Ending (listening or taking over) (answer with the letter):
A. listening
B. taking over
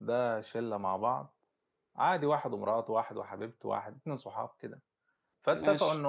A